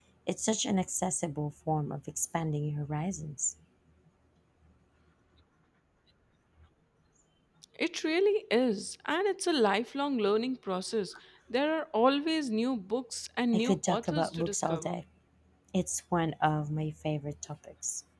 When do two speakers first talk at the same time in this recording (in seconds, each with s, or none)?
13.5 s